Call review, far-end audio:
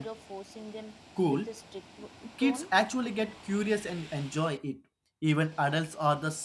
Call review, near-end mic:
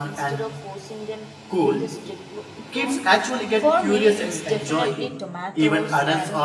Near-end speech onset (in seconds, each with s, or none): 3.5 s